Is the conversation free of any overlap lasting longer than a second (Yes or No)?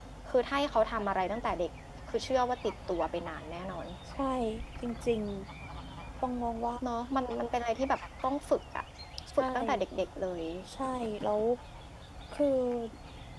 Yes